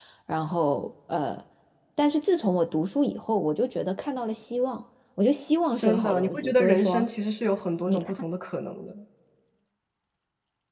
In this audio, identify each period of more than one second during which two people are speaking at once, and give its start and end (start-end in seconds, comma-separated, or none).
5.8-7.1